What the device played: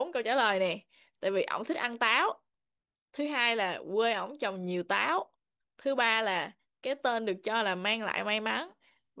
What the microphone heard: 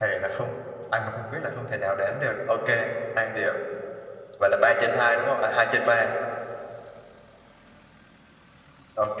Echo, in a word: none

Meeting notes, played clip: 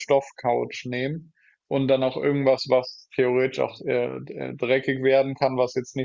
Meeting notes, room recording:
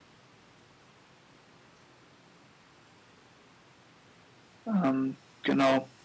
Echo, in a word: none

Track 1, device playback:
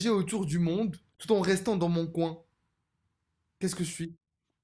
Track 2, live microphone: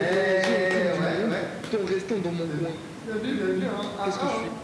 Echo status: present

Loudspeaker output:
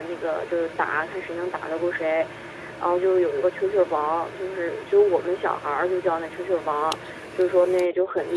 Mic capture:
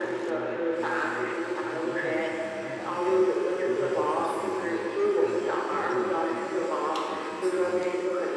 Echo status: present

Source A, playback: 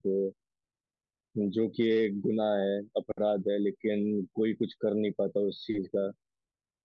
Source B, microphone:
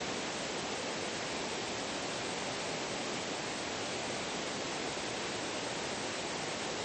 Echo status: none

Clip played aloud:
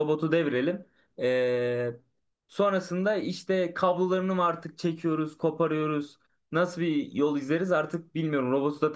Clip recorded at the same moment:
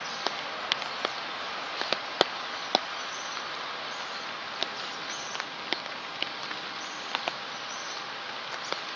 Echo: none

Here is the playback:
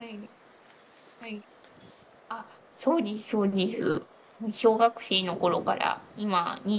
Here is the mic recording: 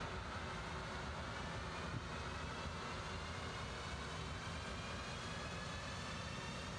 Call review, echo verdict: none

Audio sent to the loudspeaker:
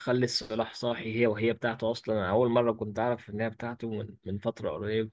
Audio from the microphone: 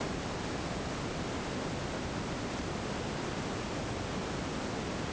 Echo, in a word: none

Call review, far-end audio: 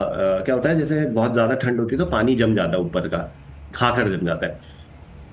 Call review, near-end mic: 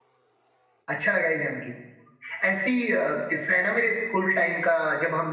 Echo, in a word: none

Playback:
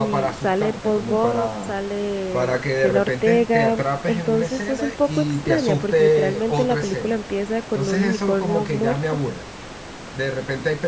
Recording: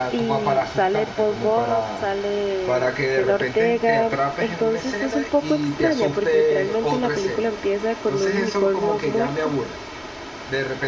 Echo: present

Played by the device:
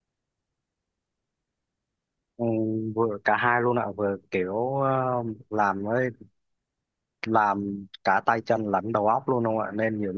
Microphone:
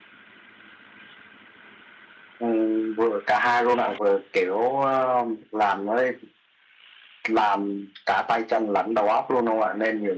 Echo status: present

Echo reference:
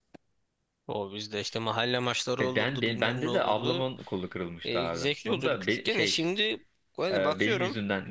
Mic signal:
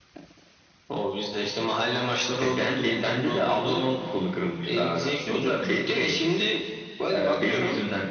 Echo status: present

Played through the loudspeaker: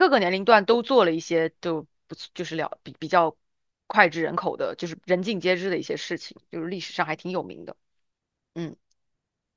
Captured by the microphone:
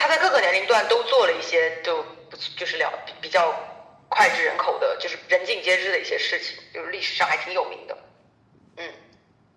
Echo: present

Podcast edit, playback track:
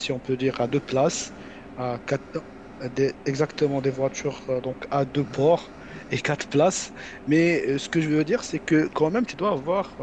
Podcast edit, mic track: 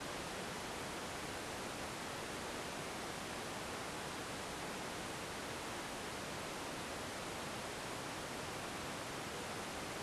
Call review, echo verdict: none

